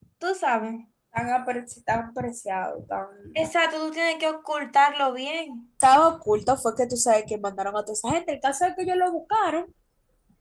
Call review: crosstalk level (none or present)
none